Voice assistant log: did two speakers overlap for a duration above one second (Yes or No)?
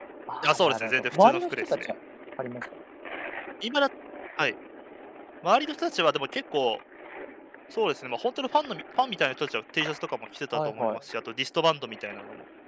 Yes